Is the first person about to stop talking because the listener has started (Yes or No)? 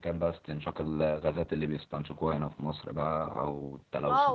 Yes